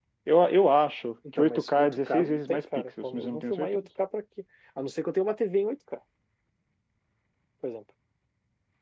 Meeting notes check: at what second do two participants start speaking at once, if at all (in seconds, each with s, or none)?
1.2 s